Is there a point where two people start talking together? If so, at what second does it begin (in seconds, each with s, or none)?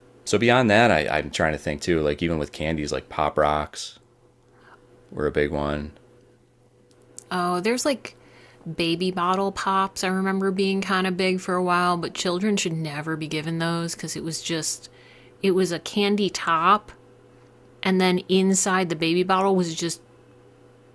none